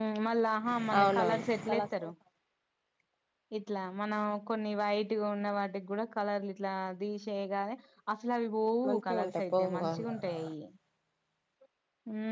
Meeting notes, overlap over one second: present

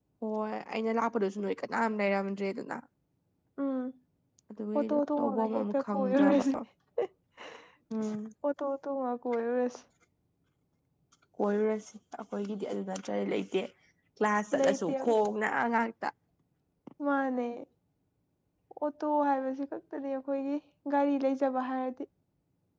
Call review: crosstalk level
present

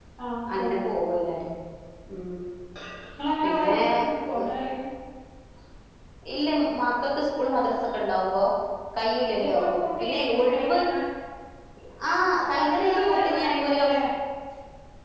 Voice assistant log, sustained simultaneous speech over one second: present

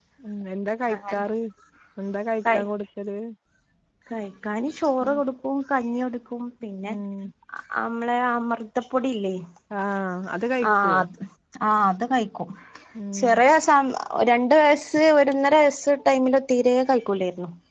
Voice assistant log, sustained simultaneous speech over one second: none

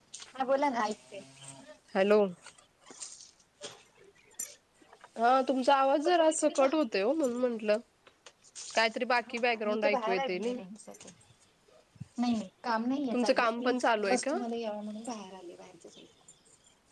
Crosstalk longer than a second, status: present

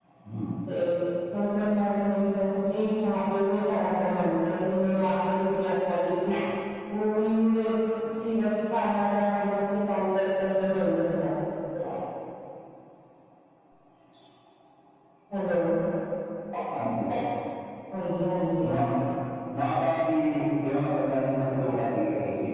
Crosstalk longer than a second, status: none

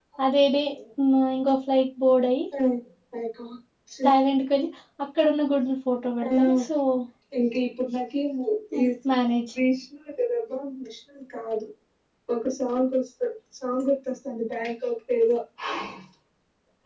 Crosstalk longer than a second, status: none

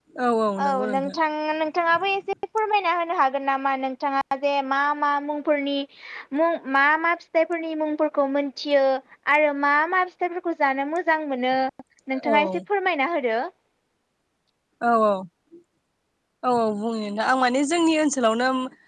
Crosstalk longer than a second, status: none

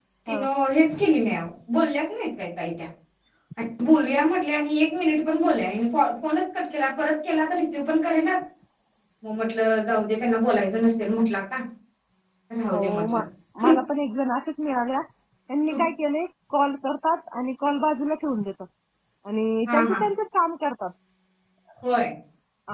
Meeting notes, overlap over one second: none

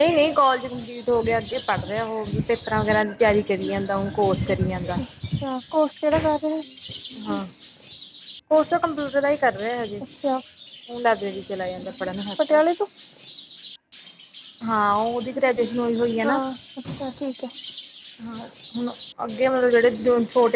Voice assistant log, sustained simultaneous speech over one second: none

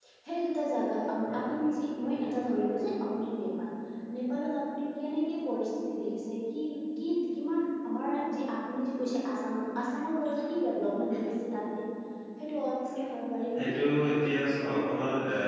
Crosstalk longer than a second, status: none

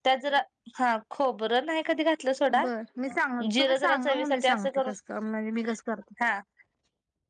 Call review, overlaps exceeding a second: present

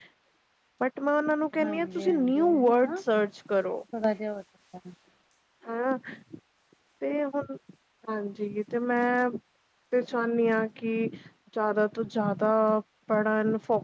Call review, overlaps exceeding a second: present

